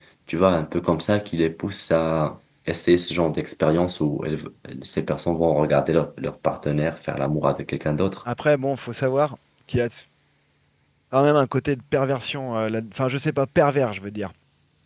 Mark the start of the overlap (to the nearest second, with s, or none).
none